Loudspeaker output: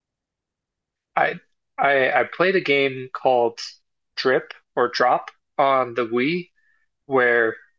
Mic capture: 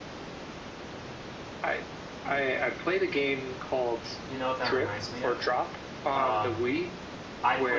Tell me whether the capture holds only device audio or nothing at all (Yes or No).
No